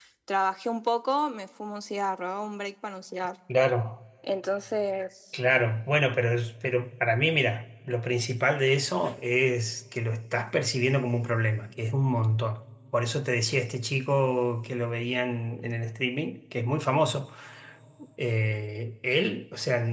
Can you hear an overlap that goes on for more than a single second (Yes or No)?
No